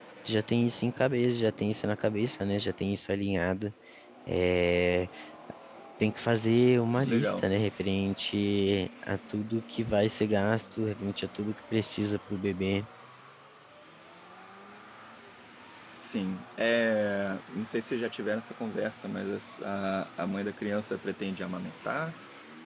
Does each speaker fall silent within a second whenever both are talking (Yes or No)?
Yes